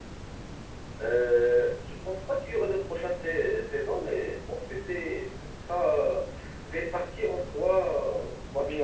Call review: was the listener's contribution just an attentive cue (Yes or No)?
No